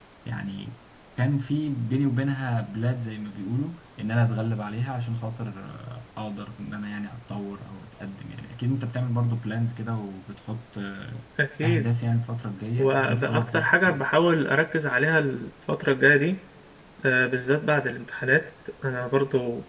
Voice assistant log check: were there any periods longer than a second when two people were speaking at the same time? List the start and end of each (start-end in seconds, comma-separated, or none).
12.8-14.1